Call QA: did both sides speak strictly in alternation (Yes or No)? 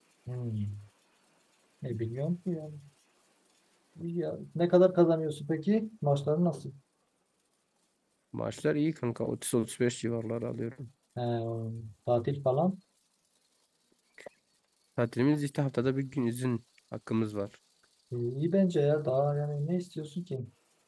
Yes